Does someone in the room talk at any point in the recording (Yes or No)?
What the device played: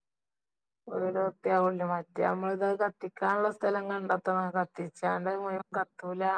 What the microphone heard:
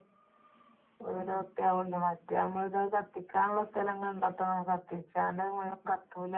No